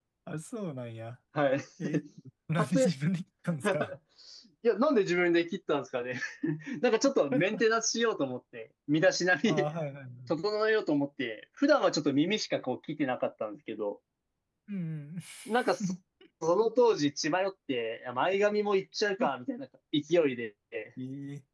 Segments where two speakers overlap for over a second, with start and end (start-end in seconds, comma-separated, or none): none